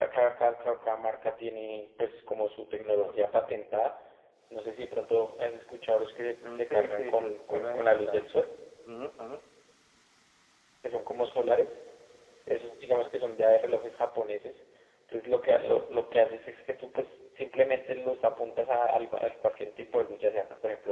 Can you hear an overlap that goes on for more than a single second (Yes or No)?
Yes